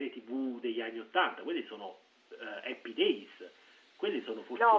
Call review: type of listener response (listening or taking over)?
taking over